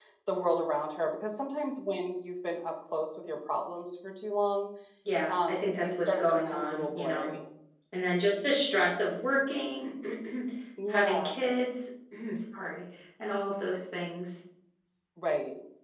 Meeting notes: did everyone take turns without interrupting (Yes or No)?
No